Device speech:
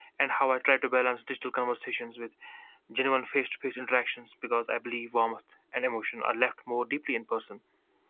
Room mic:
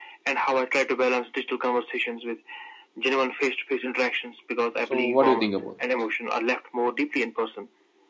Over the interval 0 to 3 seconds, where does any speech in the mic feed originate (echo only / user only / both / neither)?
echo only